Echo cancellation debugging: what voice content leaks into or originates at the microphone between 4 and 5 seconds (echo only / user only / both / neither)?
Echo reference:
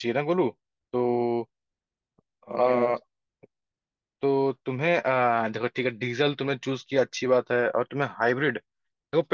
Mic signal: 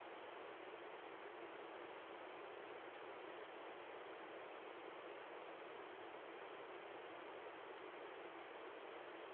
neither